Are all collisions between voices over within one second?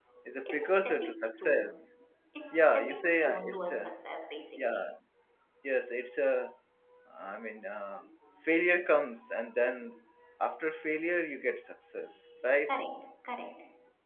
No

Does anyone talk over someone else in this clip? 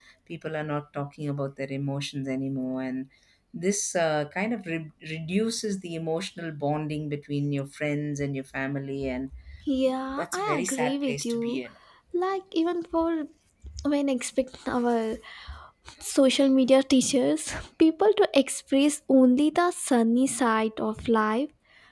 Yes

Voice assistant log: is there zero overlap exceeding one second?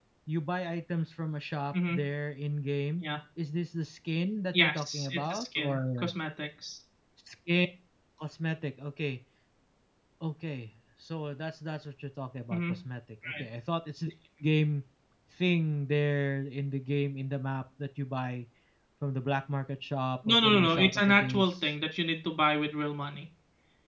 No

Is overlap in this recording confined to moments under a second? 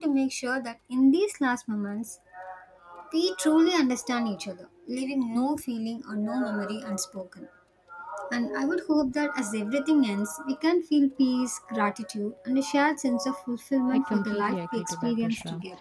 No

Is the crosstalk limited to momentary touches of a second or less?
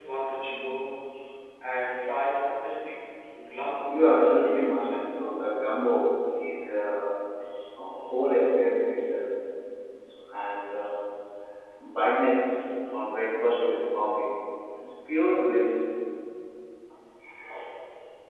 No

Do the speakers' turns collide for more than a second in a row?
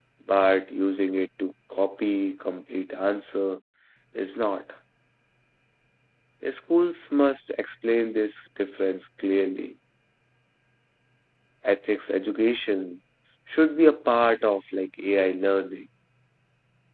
No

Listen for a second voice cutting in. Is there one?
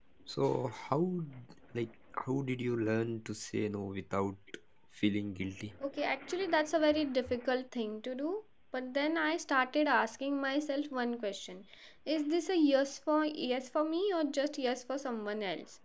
No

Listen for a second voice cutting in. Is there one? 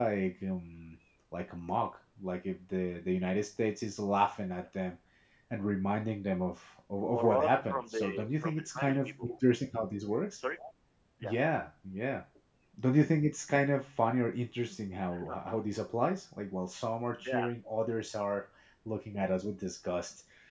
Yes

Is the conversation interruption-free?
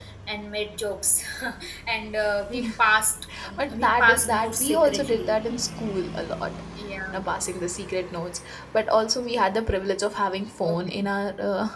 No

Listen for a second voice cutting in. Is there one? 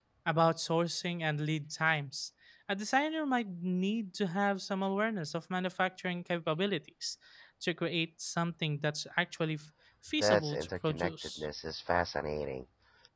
Yes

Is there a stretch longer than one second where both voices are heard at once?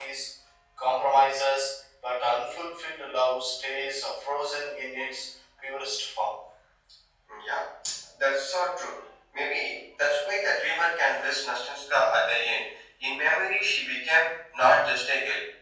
No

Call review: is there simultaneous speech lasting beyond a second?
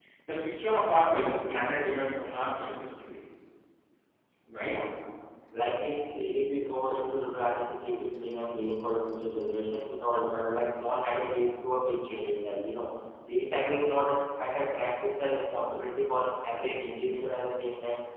No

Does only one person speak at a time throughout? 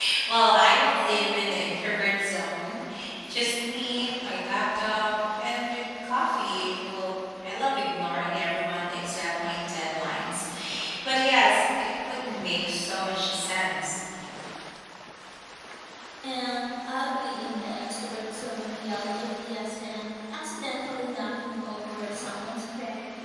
Yes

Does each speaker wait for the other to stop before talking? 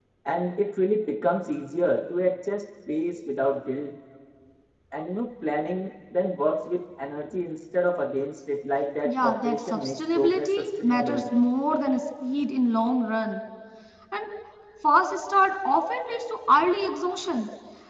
No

